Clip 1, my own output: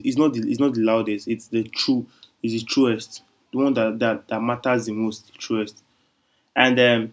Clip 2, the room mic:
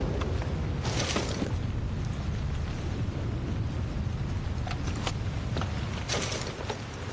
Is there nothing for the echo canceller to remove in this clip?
Yes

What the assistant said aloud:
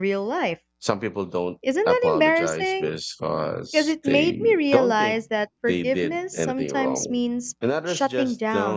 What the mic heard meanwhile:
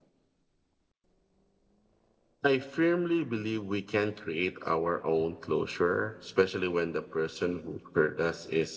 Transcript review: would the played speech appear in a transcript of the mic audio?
No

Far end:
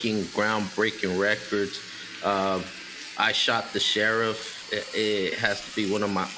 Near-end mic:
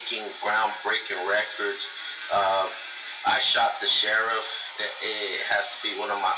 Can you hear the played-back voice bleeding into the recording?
Yes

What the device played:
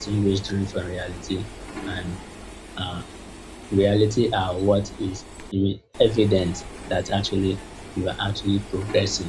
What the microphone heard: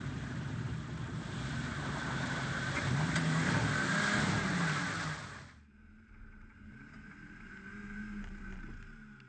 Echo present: No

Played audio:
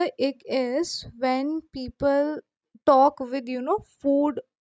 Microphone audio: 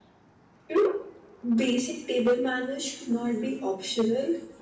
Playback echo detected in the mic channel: No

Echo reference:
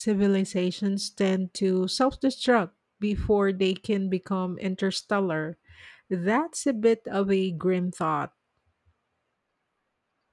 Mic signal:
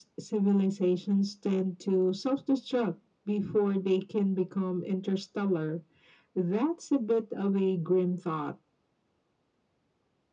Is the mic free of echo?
No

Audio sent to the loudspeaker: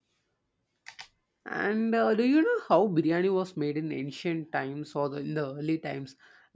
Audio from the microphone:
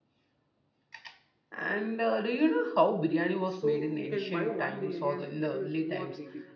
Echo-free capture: No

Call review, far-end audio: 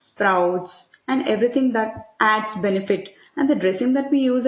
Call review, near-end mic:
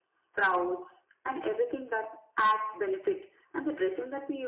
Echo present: Yes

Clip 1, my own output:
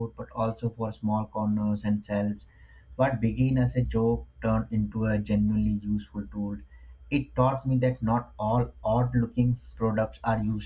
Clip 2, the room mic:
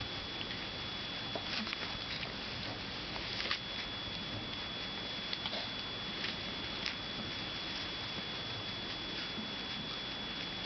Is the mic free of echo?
Yes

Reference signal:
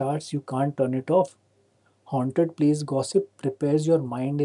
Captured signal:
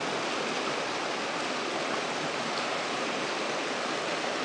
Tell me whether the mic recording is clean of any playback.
Yes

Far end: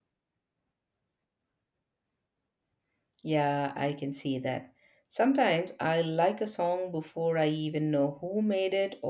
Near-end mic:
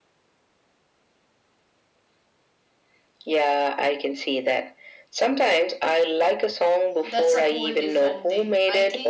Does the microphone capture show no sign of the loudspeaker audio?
No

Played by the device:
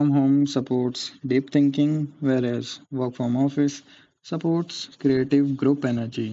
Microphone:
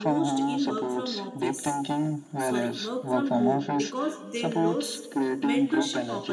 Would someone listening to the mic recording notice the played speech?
Yes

